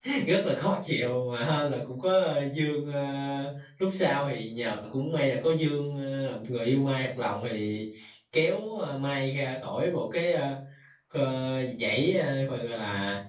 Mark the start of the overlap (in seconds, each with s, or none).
none